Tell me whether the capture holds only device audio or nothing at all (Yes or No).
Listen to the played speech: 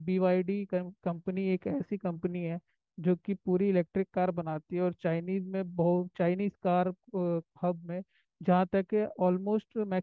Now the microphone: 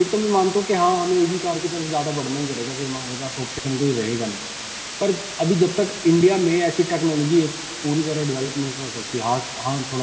No